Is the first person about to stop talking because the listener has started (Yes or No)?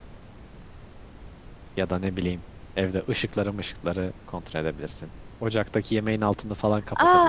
Yes